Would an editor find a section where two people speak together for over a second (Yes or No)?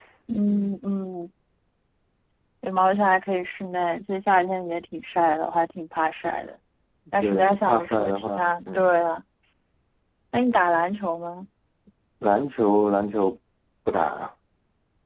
Yes